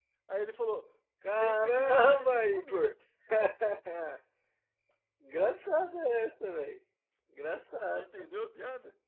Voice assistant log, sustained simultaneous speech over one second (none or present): present